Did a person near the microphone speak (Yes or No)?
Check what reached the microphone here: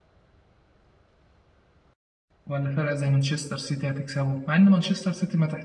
Yes